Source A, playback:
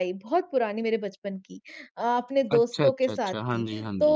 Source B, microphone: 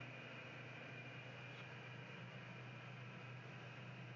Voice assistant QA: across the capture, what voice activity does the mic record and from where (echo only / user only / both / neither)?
neither